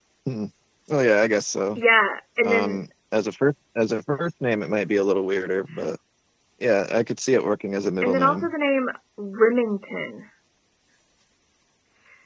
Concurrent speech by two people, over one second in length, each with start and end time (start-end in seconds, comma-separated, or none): none